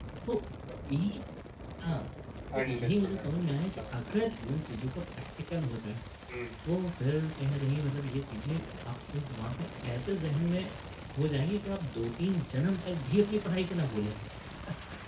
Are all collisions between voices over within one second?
No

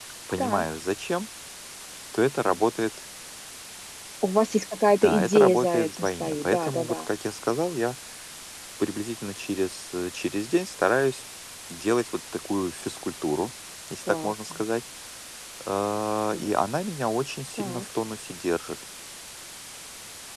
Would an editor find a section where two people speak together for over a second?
Yes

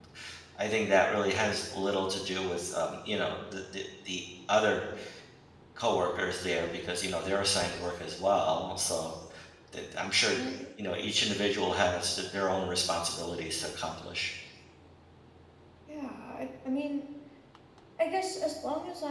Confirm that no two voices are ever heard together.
Yes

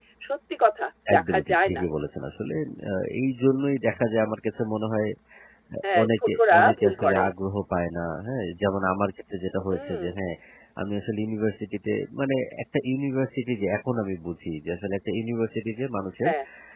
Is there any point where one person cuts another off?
Yes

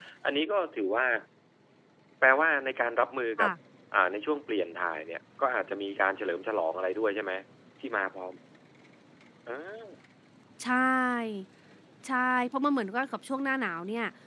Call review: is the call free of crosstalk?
Yes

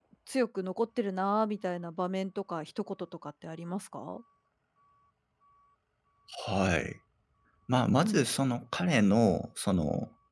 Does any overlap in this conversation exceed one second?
No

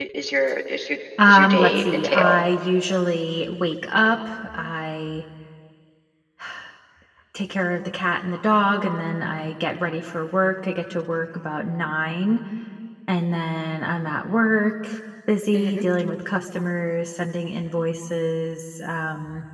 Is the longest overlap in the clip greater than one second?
Yes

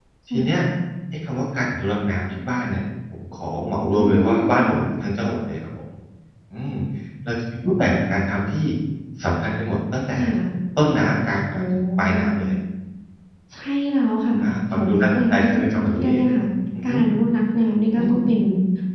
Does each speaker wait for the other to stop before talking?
No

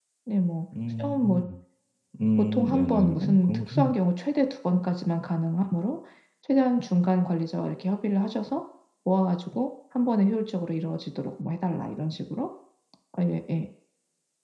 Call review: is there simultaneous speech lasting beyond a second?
Yes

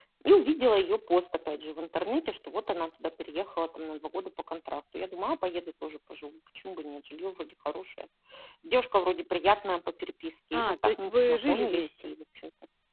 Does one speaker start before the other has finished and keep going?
Yes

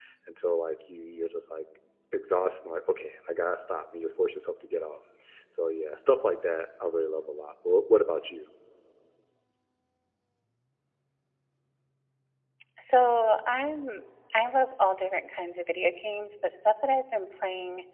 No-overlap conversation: Yes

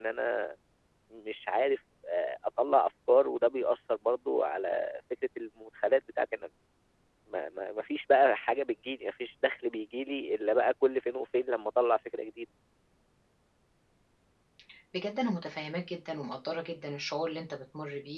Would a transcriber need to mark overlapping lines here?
No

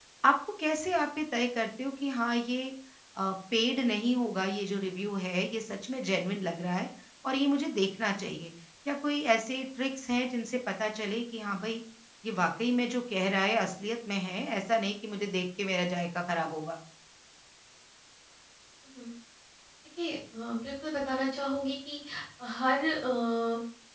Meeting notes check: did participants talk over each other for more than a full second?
No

